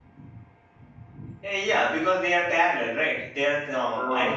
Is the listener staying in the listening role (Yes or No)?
No